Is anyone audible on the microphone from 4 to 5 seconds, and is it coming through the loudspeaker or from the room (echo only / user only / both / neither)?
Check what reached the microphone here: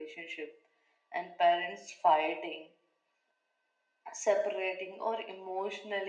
echo only